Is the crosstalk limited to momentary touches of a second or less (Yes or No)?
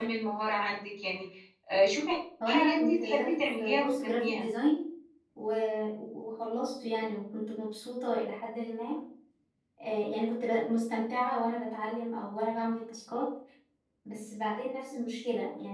No